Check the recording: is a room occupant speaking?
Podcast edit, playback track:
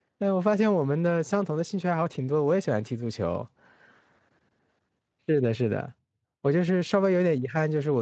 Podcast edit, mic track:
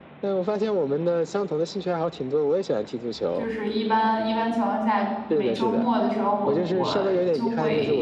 Yes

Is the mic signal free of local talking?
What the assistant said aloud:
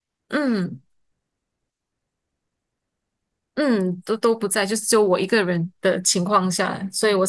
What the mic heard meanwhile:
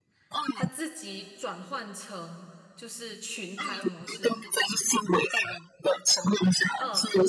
No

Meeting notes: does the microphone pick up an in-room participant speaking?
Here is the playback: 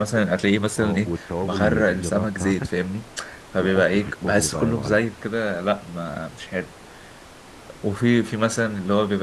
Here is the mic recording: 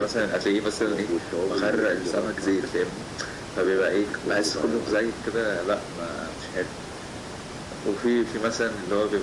No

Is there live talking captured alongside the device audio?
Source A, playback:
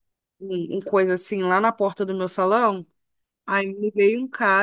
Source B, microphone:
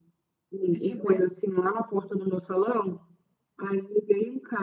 Yes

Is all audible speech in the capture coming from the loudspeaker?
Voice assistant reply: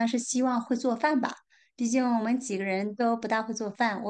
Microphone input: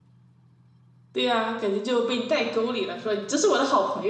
No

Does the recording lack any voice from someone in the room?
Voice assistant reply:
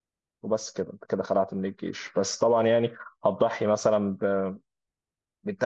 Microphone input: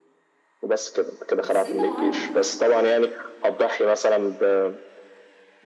No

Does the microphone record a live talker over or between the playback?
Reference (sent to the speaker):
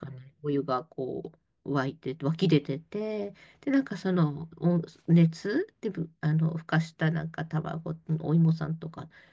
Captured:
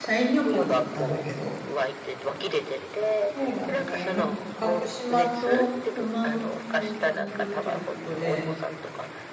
Yes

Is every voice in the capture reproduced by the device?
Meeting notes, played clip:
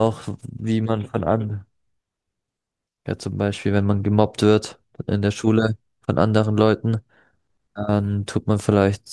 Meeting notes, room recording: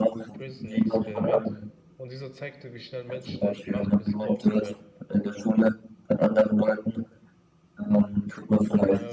No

